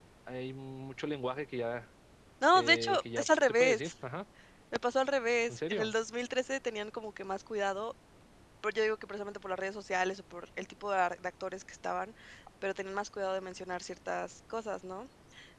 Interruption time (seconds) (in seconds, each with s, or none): 2.5 s